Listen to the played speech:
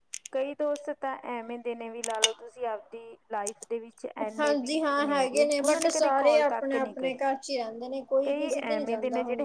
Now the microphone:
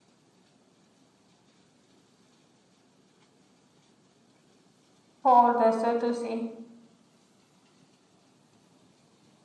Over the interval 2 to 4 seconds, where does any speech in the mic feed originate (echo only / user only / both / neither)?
neither